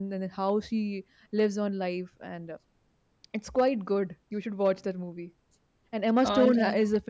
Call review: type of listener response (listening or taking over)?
listening